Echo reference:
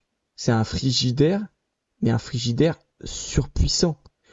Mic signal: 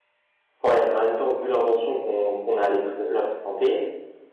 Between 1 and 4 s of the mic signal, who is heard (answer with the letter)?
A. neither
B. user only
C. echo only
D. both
B